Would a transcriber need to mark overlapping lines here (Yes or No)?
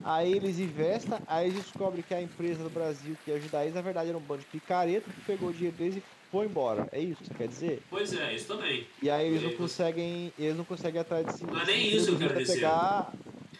Yes